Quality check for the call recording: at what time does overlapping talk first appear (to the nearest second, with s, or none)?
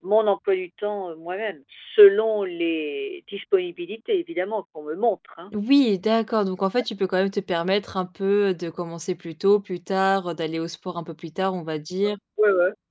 none